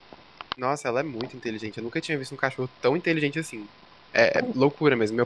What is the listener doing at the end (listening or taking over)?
listening